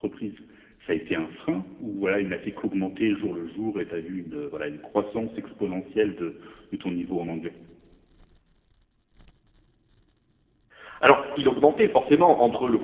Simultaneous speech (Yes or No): No